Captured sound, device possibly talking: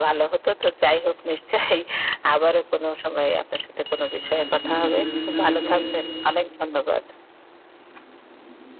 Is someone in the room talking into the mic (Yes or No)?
Yes